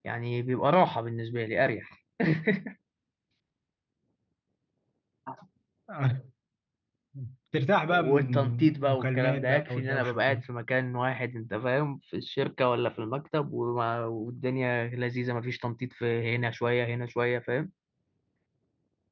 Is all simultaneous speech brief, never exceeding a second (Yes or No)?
No